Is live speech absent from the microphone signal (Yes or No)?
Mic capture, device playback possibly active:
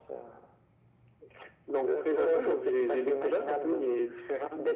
Yes